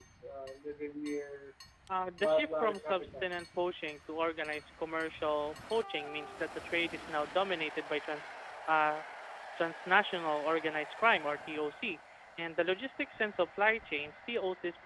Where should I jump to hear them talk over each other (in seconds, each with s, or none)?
2.2 s